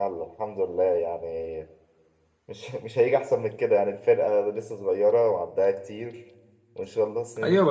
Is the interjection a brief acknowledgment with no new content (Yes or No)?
No